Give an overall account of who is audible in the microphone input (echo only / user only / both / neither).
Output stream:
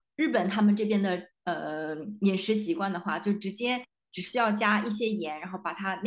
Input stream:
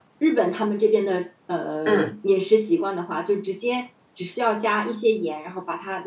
both